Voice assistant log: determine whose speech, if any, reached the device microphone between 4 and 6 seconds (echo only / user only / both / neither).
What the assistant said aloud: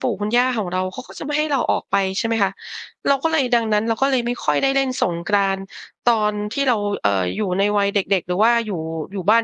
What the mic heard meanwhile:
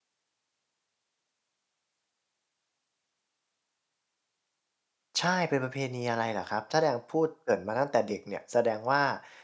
user only